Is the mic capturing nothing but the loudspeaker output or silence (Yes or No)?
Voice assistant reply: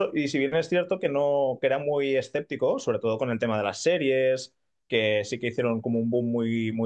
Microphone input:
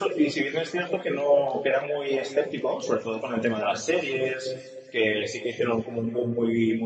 Yes